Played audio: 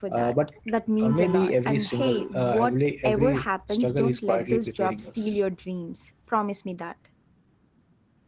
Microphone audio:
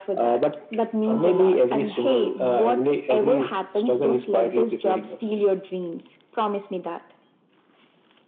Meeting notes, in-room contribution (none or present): none